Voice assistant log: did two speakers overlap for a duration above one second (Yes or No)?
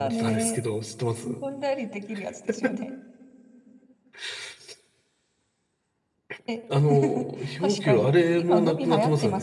Yes